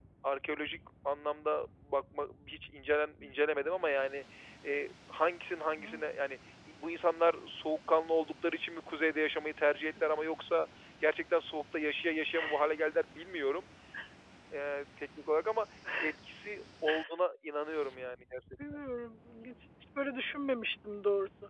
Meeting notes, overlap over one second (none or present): none